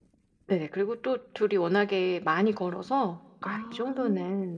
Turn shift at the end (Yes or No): No